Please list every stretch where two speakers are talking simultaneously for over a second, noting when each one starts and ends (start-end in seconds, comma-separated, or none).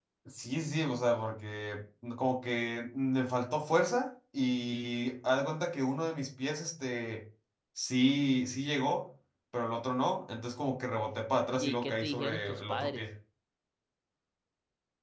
11.5-13.0